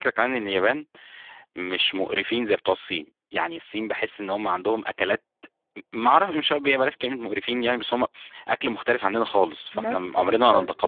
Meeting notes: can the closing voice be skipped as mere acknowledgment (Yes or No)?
No